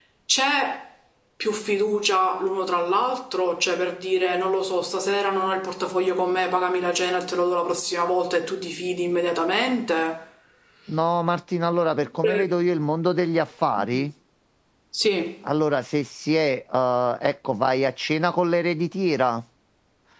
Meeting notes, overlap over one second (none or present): none